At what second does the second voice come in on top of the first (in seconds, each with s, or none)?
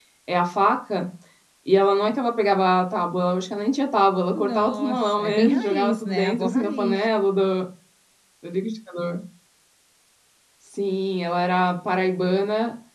4.3 s